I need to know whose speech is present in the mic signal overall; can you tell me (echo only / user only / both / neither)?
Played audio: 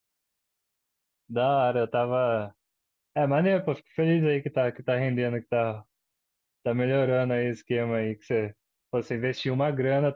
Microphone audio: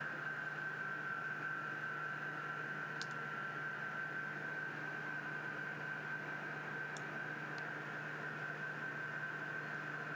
neither